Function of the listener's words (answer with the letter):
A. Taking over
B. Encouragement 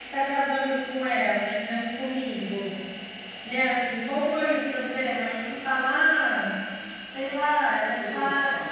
B